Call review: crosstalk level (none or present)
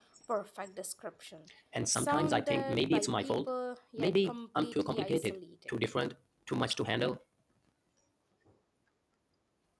present